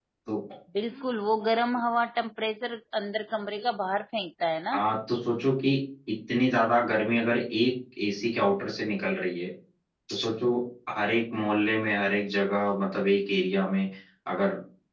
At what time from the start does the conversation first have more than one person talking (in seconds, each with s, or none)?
none